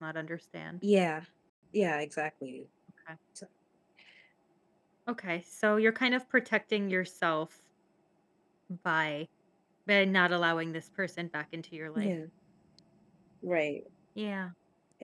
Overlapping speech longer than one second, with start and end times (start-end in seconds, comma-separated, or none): none